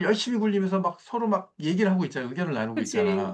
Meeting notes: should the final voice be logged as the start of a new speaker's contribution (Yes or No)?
Yes